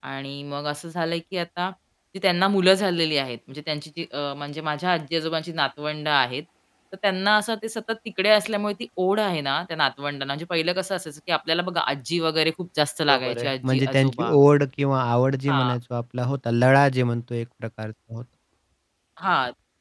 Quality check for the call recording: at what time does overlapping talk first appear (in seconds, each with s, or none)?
13.1 s